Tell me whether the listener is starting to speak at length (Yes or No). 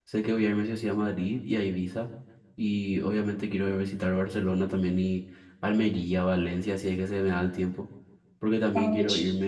No